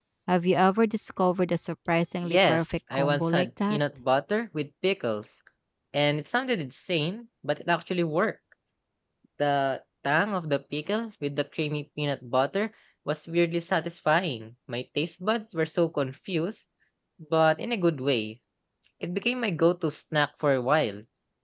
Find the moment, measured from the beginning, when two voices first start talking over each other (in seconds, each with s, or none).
2.2 s